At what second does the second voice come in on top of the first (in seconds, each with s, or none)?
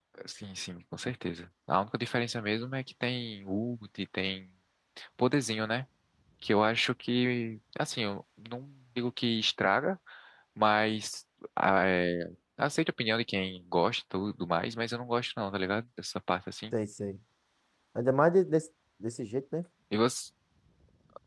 none